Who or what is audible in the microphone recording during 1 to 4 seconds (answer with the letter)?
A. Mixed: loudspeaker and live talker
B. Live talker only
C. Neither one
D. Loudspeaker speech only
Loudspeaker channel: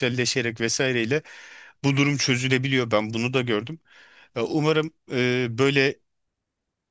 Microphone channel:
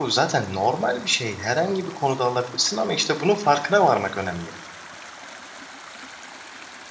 B